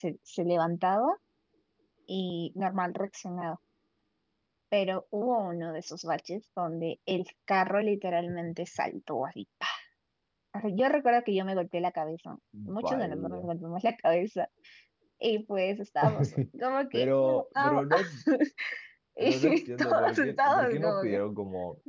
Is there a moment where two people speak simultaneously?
Yes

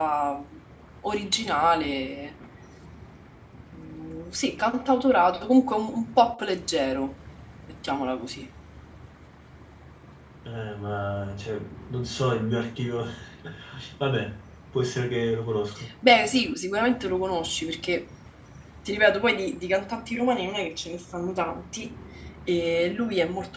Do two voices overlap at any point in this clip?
No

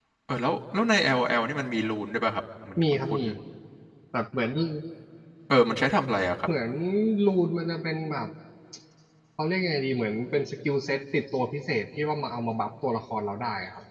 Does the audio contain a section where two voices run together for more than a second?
No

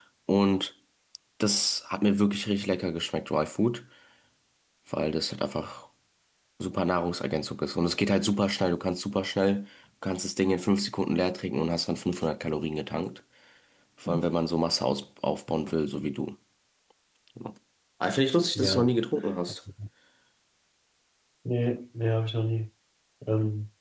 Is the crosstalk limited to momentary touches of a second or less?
Yes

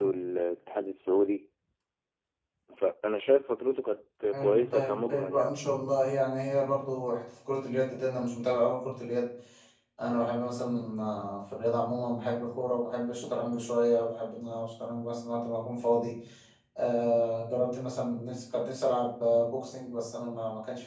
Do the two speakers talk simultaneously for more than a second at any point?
Yes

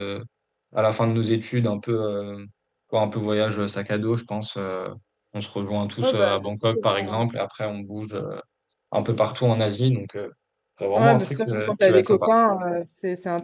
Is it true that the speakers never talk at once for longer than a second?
No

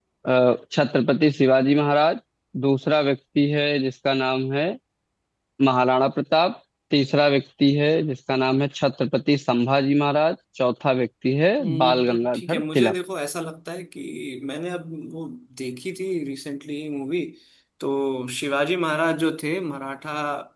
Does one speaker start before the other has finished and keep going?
Yes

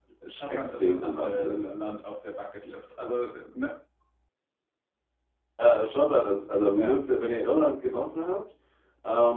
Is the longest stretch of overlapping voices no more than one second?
No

